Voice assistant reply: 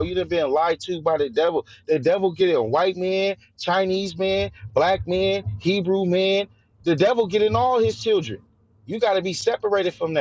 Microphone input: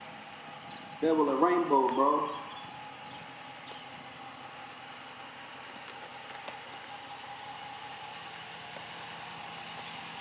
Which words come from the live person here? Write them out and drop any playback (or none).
Devil a rainbow, bro.